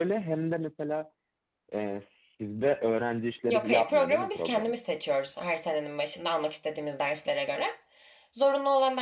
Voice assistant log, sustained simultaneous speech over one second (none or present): present